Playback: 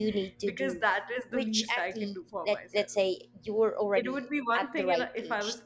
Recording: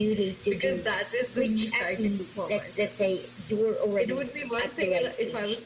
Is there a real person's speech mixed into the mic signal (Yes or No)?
No